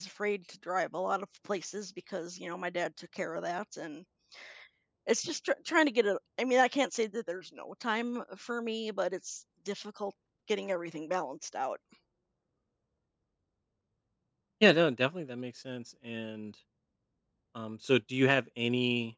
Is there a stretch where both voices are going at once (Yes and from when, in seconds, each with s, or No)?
No